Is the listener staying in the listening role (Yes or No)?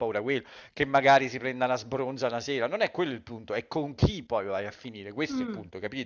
No